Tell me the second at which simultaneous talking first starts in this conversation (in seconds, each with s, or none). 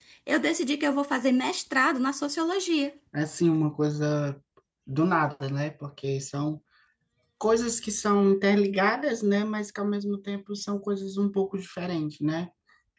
none